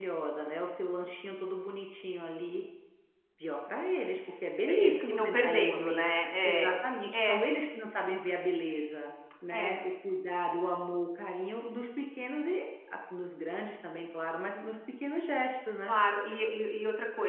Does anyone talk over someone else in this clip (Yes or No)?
Yes